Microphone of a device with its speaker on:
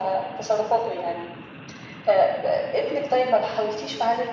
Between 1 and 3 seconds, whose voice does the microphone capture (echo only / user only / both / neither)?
echo only